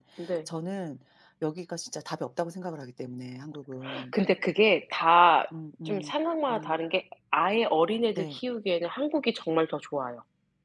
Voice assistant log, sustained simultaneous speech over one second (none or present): none